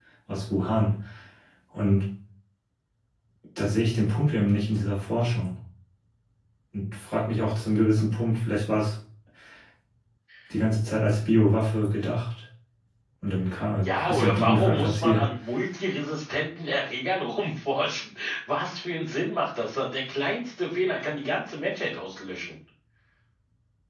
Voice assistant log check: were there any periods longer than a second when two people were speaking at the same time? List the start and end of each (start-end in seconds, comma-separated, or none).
13.8-15.3